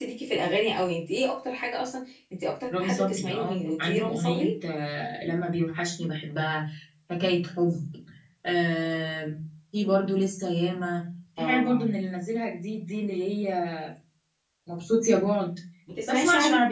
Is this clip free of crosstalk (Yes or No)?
No